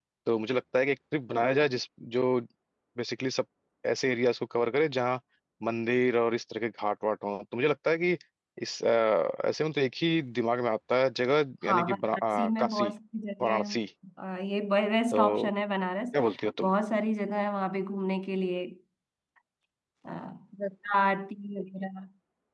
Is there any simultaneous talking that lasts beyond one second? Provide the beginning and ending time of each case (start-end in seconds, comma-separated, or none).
11.6-12.9